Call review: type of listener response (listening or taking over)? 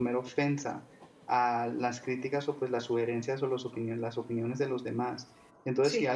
listening